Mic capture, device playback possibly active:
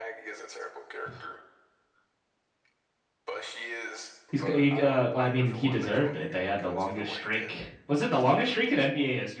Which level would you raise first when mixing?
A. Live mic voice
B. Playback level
B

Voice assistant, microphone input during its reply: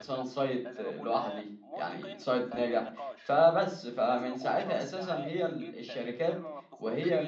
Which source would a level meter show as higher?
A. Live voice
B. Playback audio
A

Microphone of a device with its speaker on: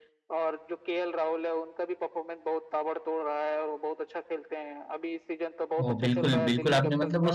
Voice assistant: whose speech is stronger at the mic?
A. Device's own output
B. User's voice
B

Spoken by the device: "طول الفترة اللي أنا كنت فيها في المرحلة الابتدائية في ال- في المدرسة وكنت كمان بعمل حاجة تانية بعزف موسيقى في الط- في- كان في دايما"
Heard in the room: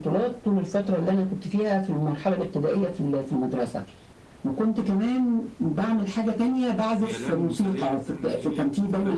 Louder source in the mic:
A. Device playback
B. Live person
A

